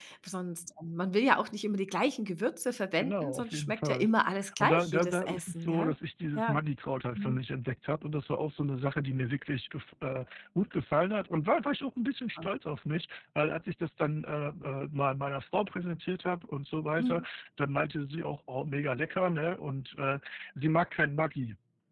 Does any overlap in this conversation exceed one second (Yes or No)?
Yes